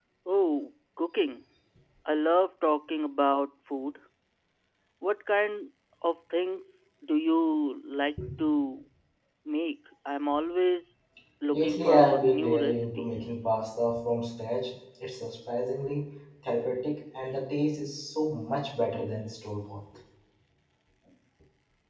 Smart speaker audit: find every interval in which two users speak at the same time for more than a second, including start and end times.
11.5-13.1

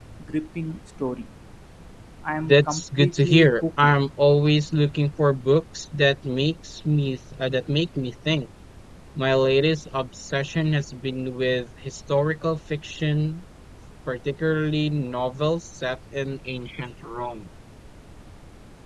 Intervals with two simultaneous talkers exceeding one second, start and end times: 2.5-3.9

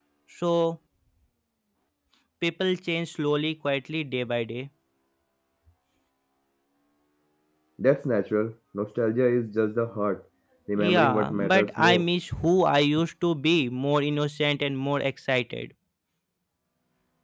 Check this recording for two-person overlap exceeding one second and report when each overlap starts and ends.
10.8-12.0

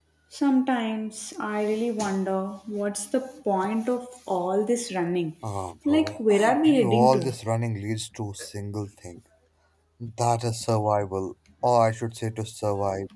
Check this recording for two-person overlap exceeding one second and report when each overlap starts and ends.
5.9-7.3

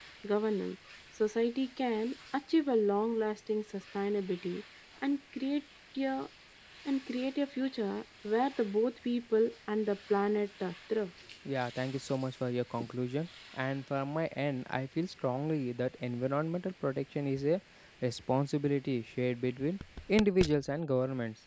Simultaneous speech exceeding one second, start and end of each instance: none

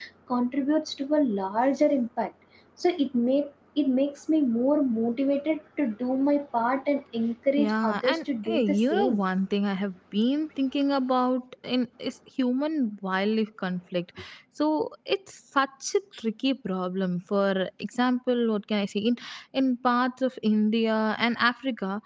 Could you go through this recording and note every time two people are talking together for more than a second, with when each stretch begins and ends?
7.6-9.2

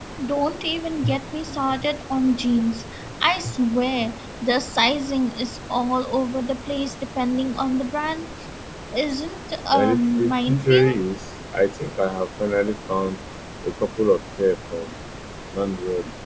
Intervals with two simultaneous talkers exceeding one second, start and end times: 9.7-11.0

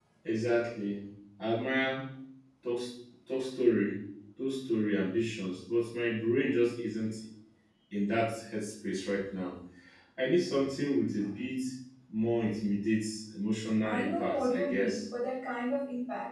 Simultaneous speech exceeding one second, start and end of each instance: 13.8-15.0

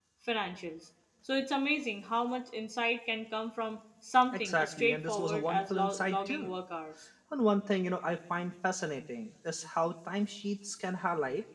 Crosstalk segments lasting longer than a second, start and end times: 4.3-6.5

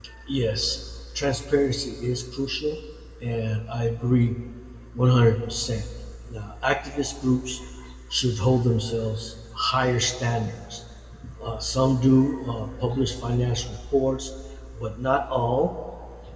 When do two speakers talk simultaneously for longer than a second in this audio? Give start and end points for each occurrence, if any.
none

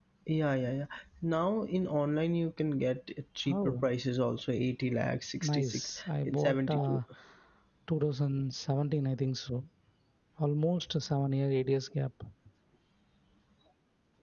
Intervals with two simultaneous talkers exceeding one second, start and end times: 5.4-7.0

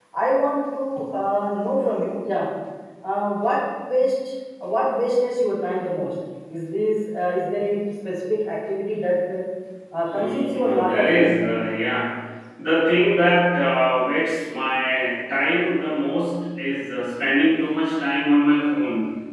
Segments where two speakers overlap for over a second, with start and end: 10.1-11.3

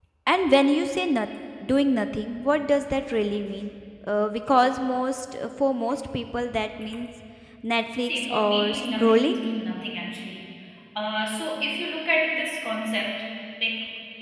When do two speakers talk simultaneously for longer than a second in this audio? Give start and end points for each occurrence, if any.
8.1-9.3

